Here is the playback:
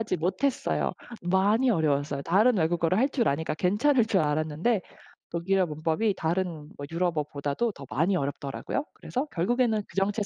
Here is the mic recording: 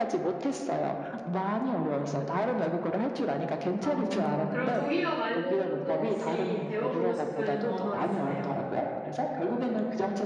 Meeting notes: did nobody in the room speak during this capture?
No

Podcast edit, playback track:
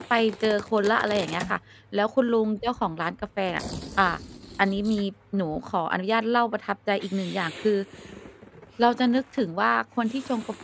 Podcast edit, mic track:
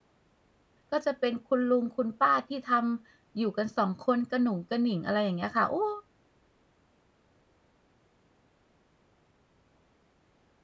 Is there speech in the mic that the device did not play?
Yes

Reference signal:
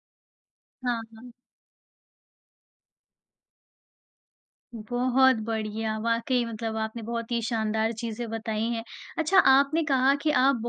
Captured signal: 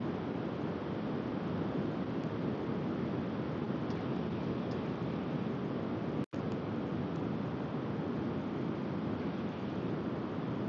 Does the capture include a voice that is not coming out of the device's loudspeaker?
No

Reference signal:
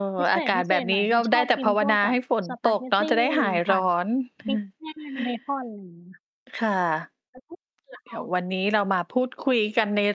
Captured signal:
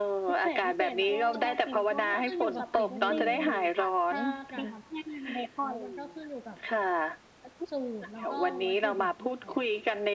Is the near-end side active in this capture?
Yes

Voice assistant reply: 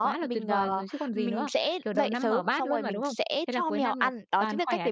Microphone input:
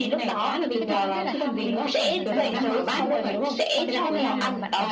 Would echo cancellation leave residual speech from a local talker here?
Yes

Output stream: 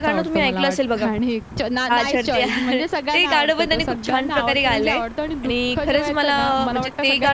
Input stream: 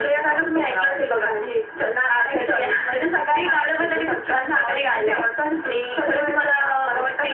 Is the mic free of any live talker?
Yes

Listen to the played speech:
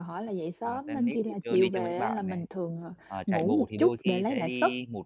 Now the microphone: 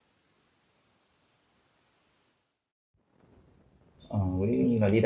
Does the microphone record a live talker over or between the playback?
Yes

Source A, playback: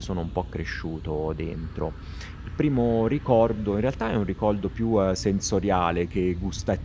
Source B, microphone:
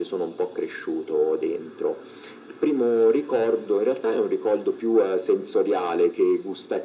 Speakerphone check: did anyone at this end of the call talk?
No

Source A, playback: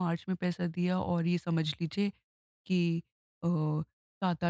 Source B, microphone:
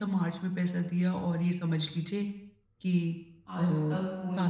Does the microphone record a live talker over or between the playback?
Yes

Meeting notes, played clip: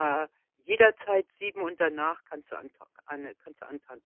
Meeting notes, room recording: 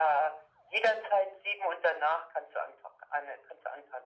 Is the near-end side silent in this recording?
Yes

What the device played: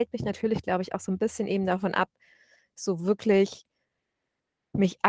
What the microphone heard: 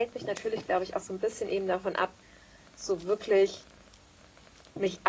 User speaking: No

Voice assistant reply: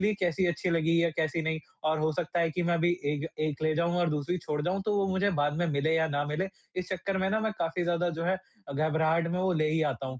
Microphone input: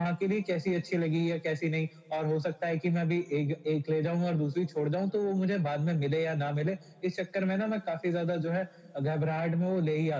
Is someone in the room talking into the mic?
No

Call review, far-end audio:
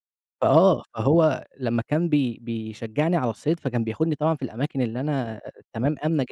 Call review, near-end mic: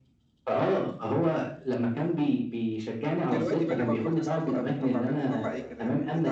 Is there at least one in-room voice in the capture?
Yes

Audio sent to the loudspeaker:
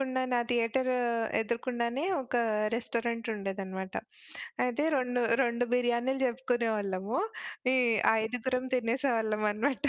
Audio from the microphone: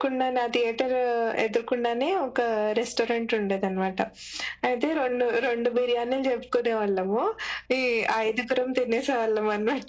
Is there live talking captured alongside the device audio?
No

